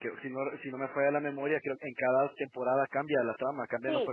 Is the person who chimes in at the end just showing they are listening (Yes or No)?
No